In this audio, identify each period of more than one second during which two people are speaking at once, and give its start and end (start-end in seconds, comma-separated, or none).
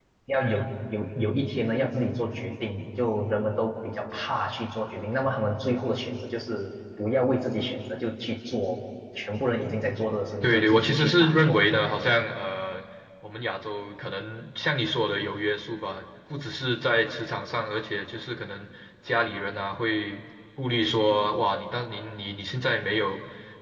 10.4-11.9